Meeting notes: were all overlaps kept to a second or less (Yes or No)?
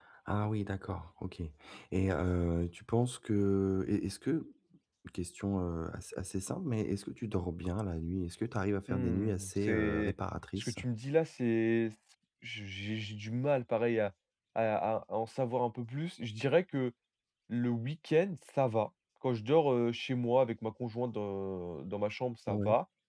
No